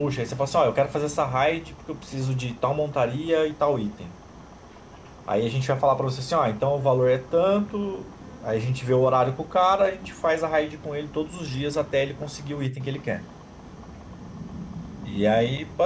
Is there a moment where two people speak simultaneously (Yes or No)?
No